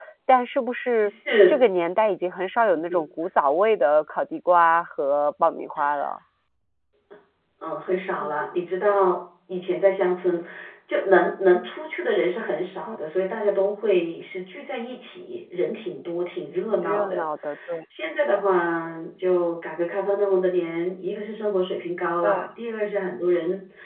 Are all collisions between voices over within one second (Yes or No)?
Yes